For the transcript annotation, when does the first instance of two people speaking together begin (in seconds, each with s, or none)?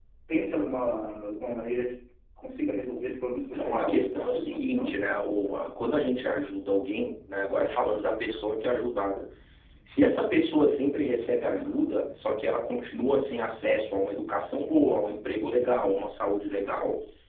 3.5 s